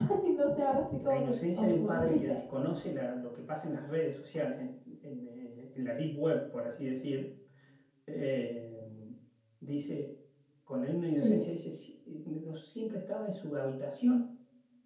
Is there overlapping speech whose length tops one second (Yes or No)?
Yes